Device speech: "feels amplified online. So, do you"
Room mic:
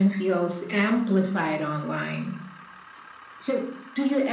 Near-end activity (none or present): none